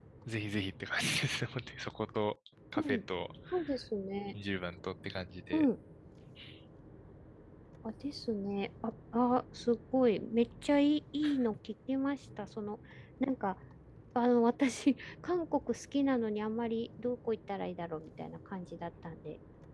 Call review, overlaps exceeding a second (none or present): none